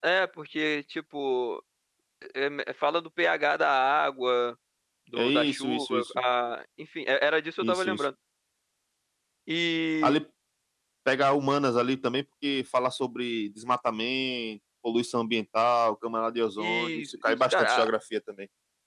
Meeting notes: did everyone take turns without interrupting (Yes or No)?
No